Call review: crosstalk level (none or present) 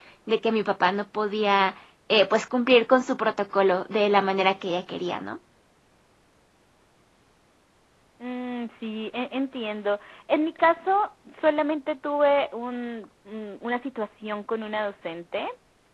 none